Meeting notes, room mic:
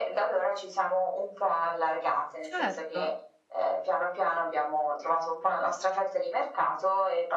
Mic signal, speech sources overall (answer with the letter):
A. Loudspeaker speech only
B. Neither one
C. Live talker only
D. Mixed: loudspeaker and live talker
D